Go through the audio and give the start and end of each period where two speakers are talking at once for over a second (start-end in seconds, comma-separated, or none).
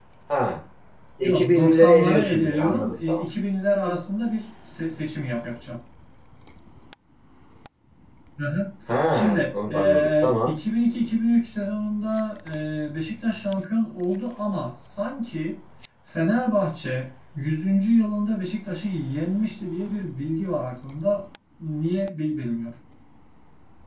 1.2-3.2, 9.1-10.6